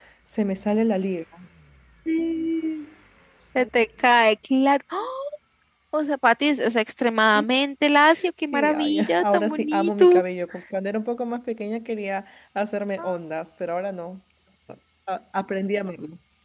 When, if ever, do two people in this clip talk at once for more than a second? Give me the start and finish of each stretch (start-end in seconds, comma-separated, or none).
8.5-10.2